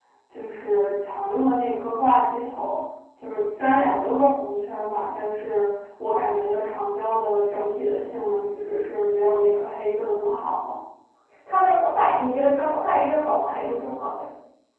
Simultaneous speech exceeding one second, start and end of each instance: none

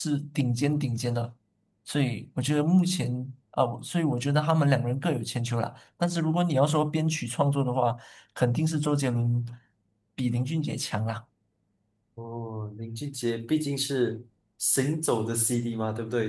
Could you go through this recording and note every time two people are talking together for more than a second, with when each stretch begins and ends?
none

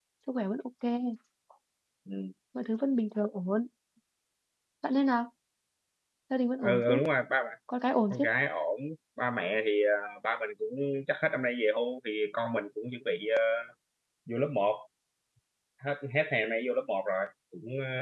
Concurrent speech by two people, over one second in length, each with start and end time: none

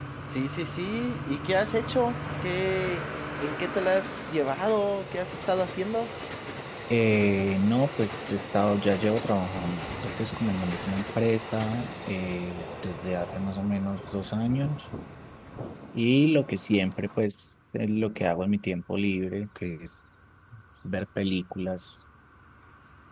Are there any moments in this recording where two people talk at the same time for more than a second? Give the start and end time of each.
none

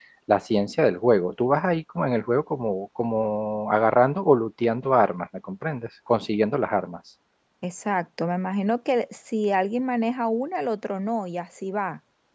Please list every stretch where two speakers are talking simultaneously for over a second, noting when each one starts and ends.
none

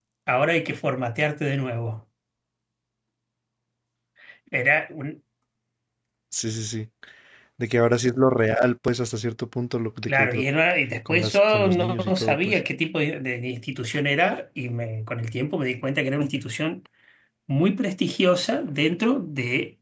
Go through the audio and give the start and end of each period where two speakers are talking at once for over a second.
11.1-12.6

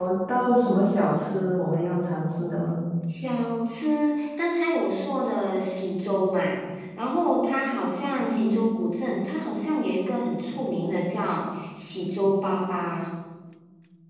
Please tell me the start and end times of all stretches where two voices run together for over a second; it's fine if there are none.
none

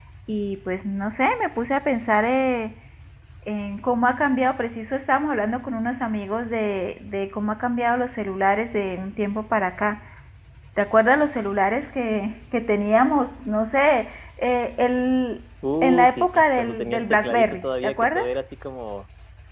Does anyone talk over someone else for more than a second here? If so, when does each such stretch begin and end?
15.8-18.2

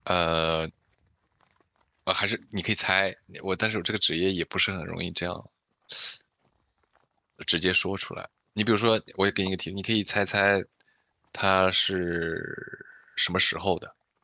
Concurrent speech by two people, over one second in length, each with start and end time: none

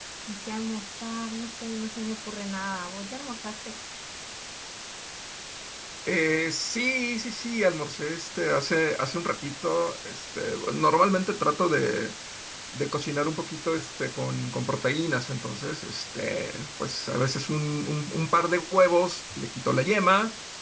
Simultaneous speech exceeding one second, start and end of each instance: none

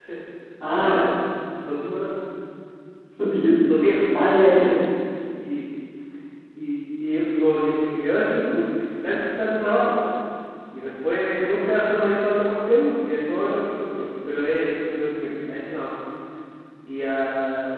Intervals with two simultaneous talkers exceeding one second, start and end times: none

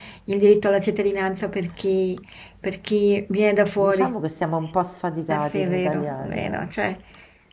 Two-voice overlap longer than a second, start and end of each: 5.3-6.6

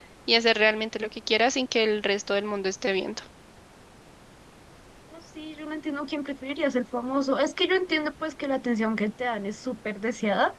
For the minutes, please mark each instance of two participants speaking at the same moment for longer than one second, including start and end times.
none

